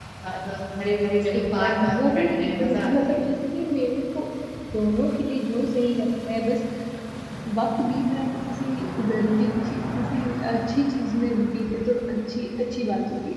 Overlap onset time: 1.3 s

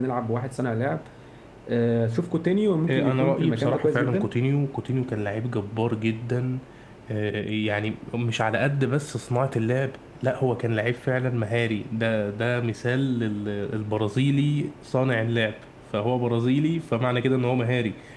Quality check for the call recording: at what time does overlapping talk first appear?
2.9 s

